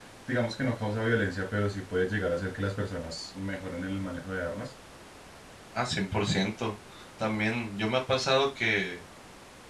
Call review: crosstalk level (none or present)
none